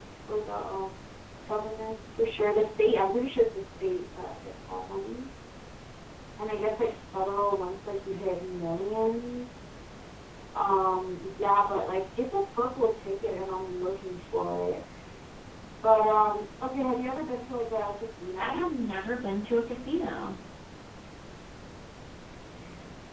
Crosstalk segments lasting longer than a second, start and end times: none

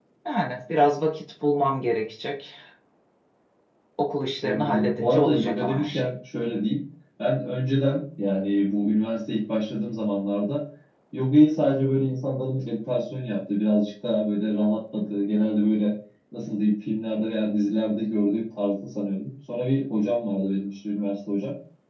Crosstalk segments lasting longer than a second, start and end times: 4.4-6.1

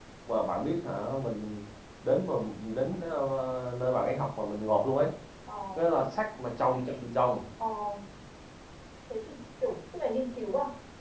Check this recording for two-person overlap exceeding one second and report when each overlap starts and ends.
none

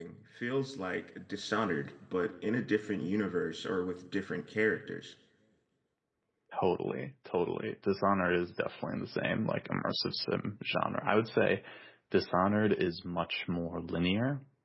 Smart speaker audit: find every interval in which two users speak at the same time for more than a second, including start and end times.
none

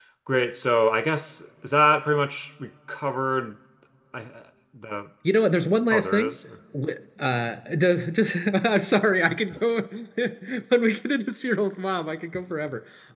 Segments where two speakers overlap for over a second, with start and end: none

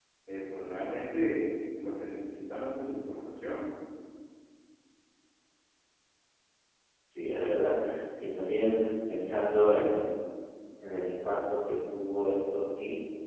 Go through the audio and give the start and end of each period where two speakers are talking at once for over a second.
none

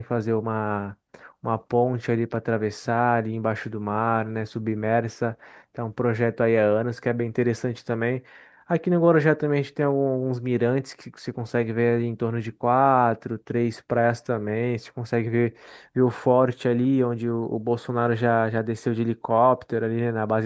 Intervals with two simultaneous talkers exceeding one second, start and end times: none

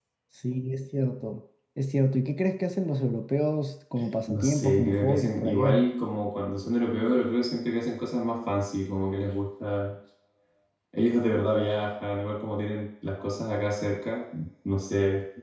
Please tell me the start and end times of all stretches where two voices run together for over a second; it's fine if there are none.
4.3-5.8

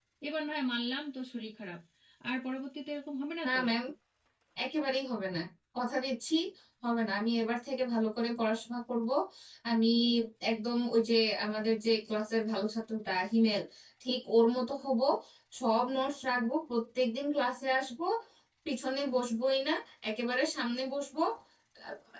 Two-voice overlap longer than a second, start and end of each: none

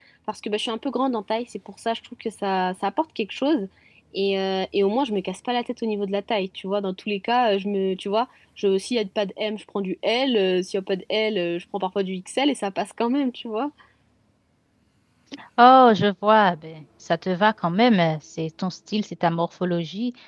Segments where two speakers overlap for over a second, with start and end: none

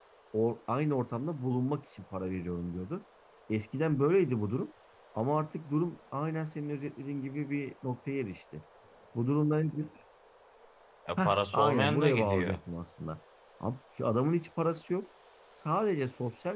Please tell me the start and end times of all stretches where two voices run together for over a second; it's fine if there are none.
11.2-12.6

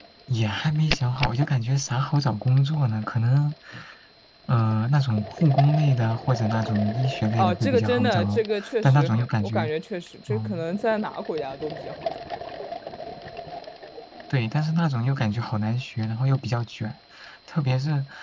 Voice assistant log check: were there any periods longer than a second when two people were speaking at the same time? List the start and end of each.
7.4-9.7

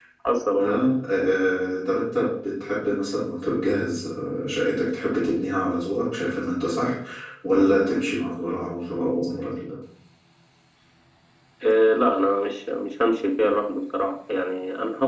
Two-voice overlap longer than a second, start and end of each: none

